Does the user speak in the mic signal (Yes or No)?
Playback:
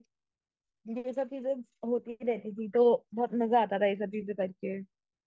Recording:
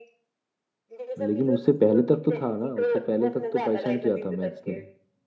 Yes